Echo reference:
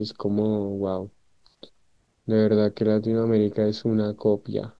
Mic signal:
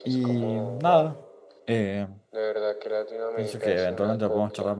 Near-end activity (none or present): present